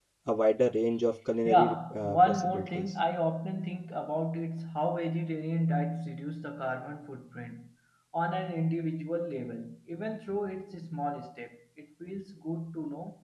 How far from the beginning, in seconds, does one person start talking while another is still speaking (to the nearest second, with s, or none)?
1 s